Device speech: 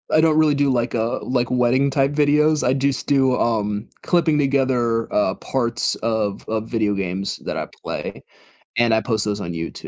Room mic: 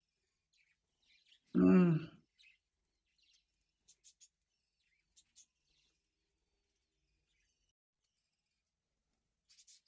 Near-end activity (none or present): present